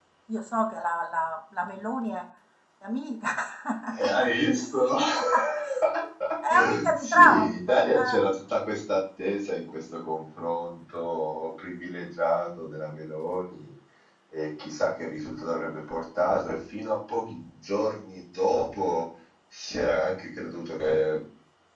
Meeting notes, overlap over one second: present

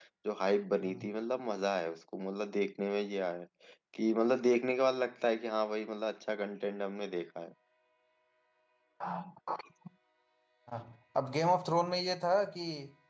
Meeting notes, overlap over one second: none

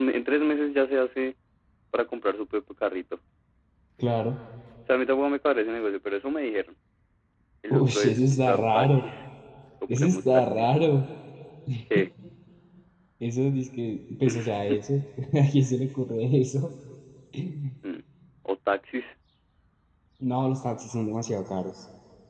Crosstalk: present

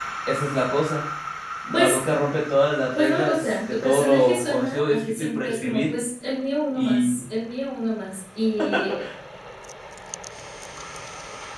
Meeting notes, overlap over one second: present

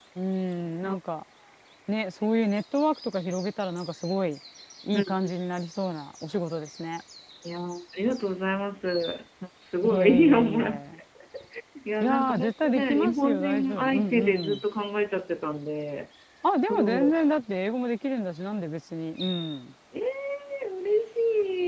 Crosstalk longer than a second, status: present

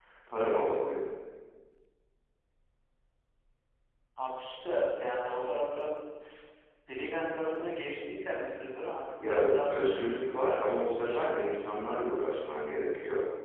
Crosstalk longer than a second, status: present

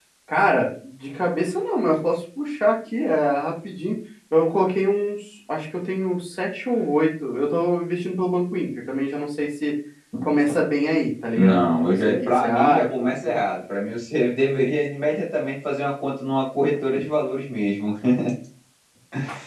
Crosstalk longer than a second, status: present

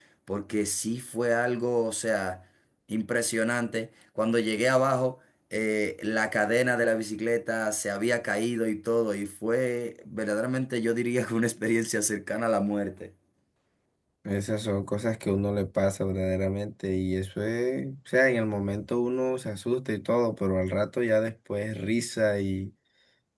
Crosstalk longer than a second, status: none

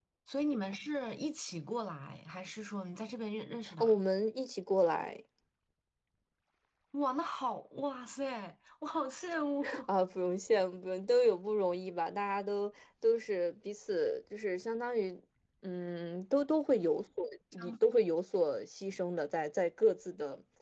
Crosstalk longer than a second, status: none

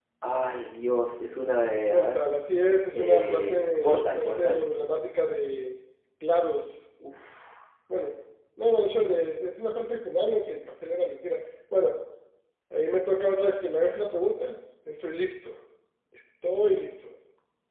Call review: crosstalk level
present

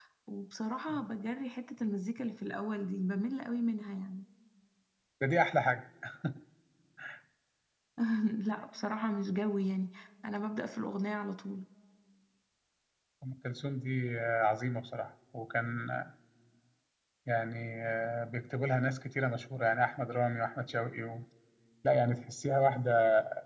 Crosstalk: none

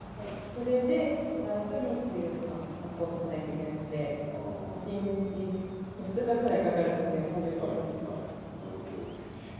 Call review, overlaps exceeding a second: none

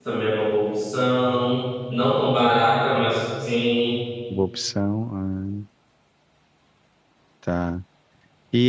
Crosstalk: none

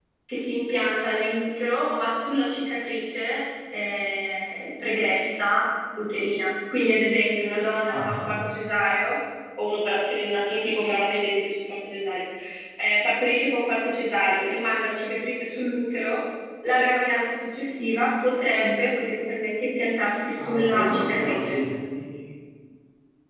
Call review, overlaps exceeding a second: present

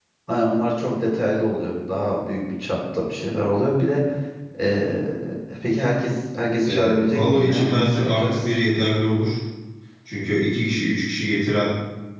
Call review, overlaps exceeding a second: present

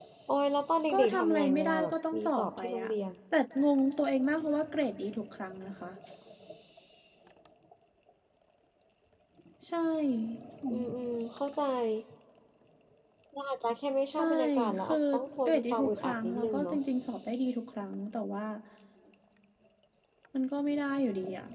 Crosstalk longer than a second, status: present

